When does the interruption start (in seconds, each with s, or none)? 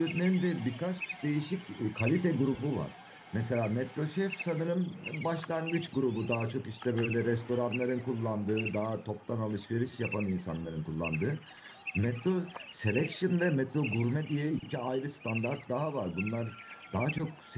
none